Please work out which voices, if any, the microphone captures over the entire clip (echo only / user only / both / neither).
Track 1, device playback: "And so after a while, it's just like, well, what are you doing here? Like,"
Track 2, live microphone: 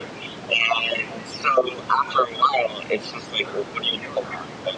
echo only